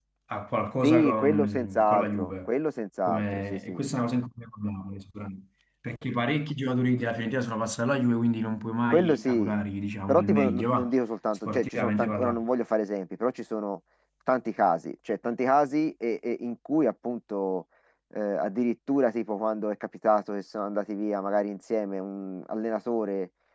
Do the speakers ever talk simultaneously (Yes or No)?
Yes